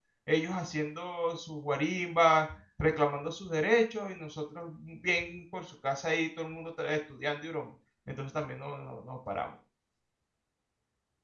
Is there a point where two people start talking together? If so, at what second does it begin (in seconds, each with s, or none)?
none